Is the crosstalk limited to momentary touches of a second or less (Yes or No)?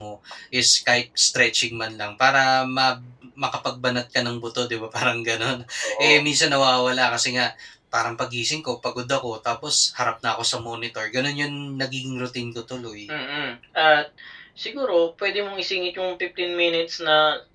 Yes